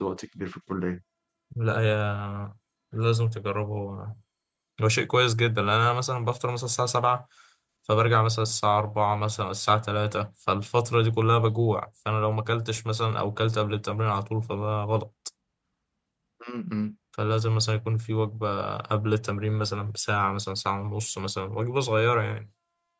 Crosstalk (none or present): none